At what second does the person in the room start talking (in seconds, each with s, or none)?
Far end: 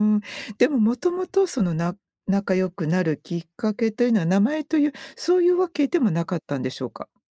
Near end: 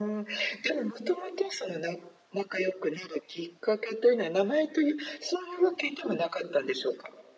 none